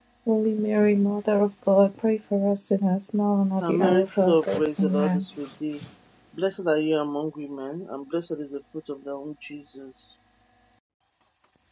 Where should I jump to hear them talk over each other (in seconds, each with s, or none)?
3.6 s